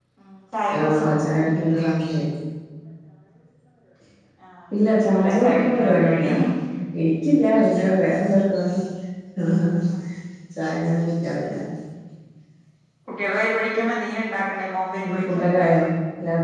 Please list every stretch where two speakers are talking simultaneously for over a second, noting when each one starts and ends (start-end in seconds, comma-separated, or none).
5.0-6.2